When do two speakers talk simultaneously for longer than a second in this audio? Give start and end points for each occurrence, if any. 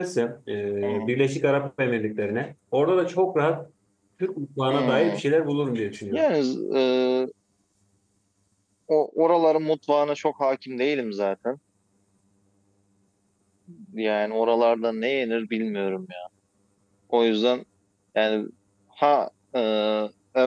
none

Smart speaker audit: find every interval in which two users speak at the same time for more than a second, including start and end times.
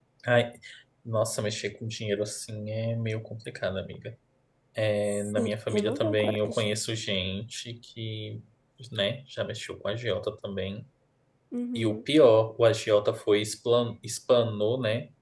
5.3-6.6

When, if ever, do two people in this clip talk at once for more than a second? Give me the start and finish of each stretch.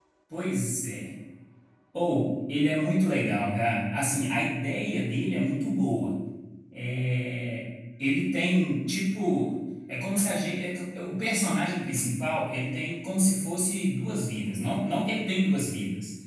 none

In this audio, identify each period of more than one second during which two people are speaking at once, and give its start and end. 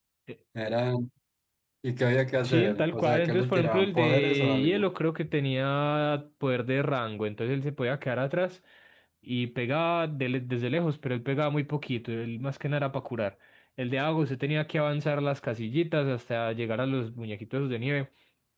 2.4-4.8

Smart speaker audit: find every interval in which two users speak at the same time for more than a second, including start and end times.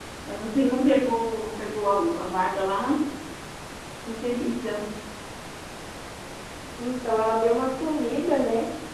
none

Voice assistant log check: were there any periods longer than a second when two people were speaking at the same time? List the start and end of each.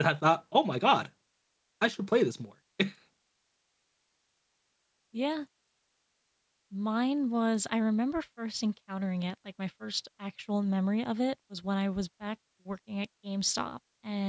none

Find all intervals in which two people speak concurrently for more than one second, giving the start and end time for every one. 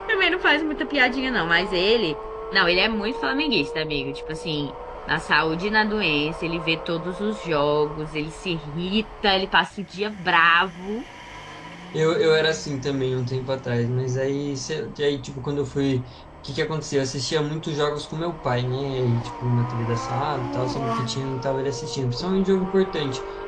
none

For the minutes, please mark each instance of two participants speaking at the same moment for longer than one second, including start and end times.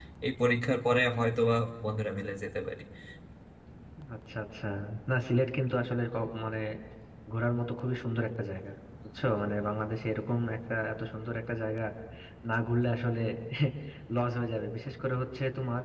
none

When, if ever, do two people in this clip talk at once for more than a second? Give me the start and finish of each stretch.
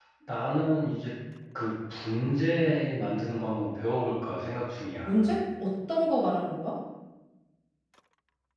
none

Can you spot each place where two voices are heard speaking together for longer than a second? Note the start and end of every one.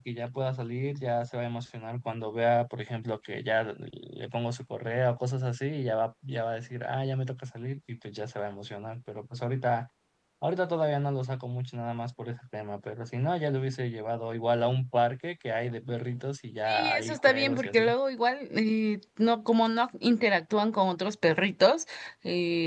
16.7-17.9

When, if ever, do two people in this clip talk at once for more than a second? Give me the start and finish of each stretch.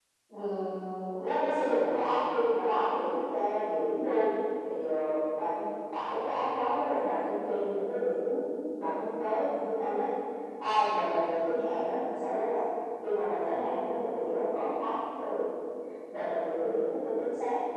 none

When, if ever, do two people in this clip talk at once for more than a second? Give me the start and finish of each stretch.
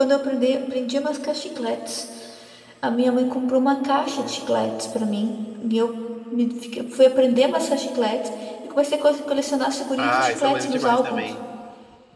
10.0-11.2

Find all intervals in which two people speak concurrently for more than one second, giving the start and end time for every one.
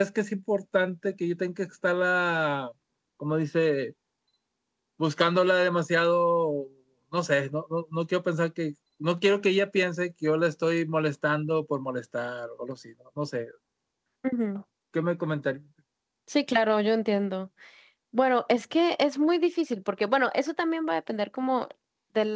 none

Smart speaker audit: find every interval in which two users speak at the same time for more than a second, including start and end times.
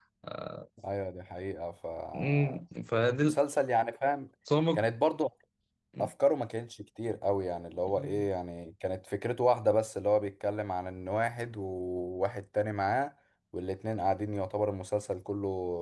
none

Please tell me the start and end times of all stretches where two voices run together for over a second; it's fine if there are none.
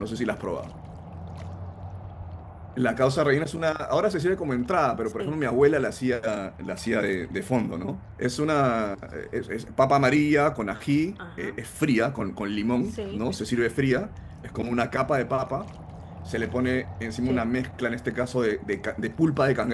none

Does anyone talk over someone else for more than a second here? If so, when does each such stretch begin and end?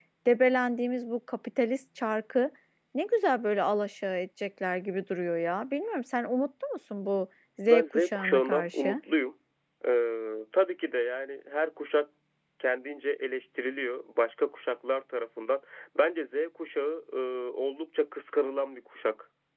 7.7-9.0

